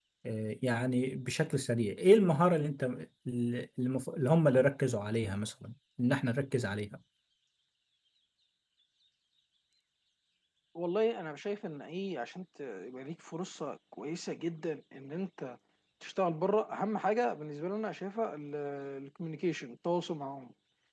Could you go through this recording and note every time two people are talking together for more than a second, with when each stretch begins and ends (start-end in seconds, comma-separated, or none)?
none